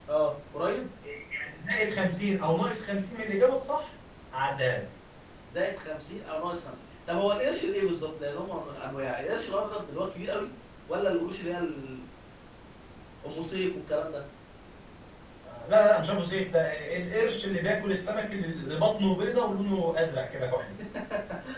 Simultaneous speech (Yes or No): No